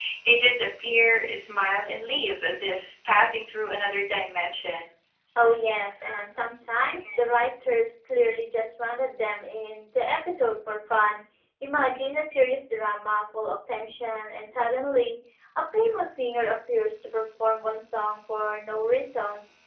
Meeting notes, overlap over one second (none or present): none